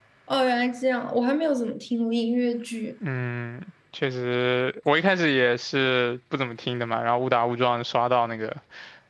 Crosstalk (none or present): none